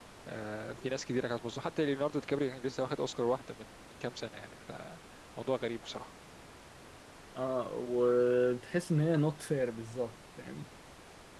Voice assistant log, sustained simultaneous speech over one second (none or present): none